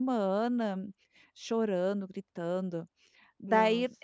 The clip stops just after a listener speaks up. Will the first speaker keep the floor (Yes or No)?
Yes